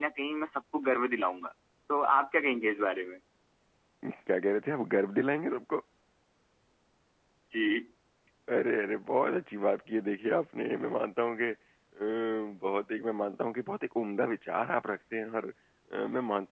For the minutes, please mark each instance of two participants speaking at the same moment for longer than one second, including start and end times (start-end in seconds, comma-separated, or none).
none